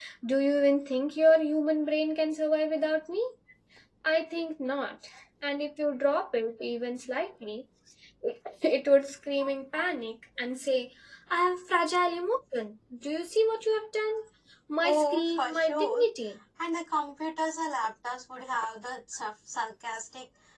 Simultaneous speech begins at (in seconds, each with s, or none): 14.8 s